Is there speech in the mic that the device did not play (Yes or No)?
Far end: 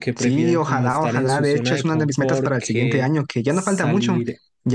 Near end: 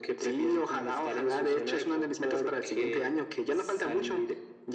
No